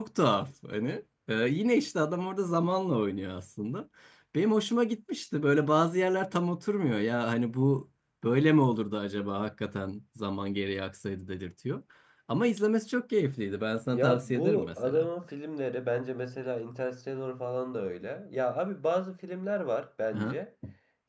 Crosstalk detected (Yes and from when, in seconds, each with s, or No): Yes, from 13.9 s